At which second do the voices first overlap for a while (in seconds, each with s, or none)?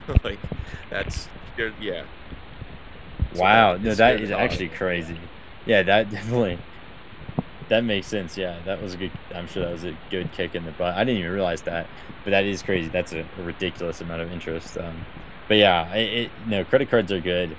3.4 s